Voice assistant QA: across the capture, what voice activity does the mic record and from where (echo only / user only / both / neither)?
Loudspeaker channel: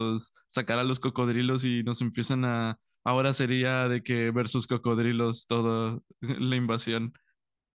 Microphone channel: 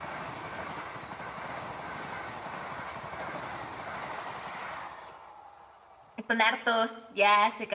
user only